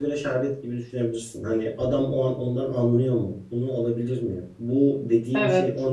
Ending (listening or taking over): listening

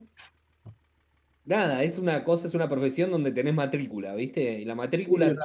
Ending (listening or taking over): listening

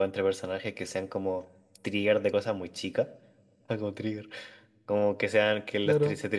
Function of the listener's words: listening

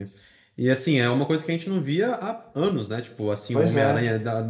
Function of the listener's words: listening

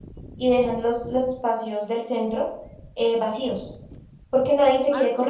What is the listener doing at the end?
listening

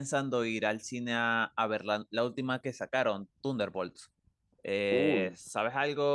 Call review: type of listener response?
listening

